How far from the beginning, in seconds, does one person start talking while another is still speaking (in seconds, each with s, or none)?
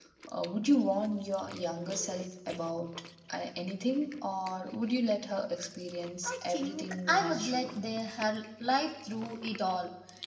6.2 s